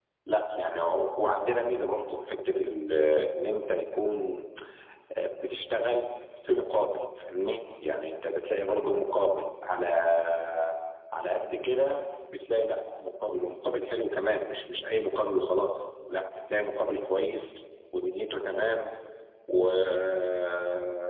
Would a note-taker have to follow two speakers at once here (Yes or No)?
No